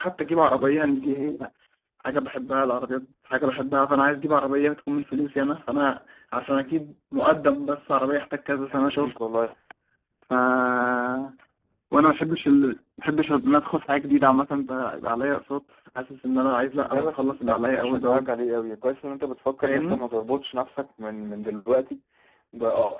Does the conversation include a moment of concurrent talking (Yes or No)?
Yes